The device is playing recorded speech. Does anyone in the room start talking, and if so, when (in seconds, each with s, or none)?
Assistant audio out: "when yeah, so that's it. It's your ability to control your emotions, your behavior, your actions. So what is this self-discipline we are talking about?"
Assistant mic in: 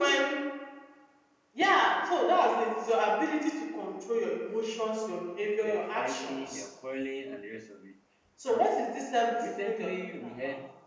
5.6 s